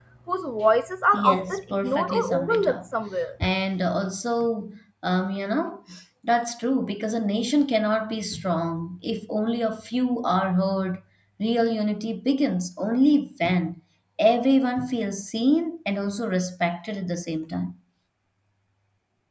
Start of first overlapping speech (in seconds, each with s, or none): 1.1 s